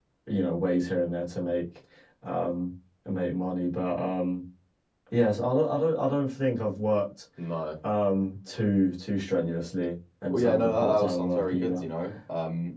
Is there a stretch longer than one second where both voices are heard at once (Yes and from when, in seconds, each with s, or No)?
Yes, from 10.3 s